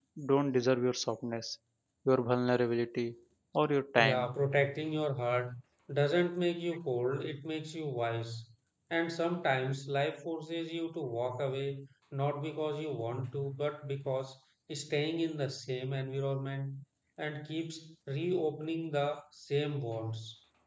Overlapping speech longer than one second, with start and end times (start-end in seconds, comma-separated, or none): none